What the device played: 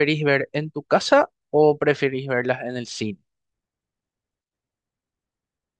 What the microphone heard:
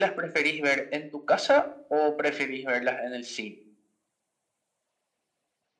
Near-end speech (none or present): none